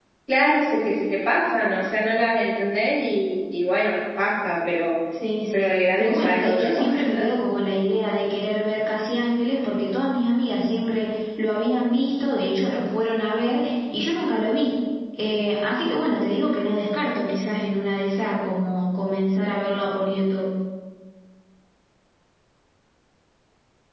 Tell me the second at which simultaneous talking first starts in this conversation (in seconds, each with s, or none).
5.5 s